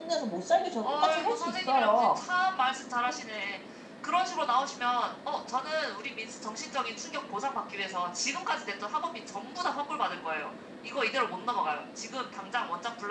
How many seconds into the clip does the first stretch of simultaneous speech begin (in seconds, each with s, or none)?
0.8 s